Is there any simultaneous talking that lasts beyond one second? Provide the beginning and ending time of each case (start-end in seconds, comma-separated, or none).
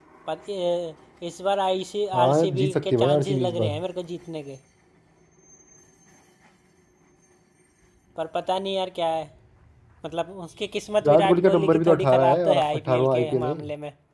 2.1-3.8, 11.0-13.6